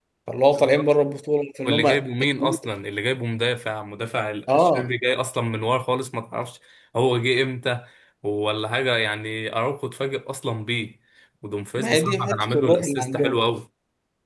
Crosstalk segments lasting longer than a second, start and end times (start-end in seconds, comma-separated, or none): 11.8-13.4